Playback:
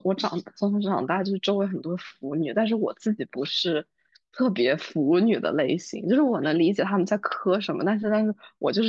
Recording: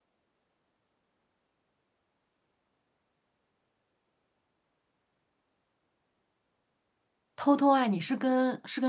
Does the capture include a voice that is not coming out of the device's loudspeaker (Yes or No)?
Yes